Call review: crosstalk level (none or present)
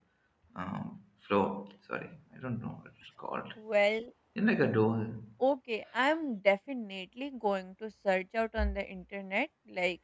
none